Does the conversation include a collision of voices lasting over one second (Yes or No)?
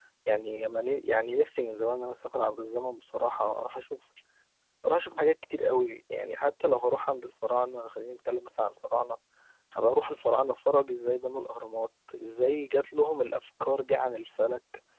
No